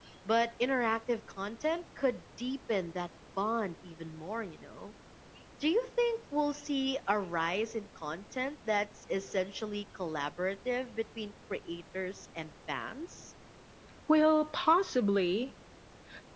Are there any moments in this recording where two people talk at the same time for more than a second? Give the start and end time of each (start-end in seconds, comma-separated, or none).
none